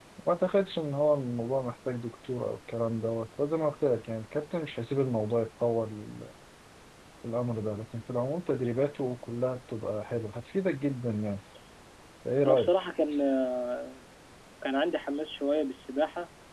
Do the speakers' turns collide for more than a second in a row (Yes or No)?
No